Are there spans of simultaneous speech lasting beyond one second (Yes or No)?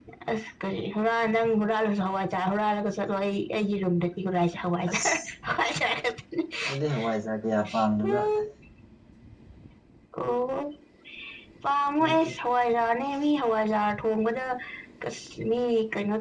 No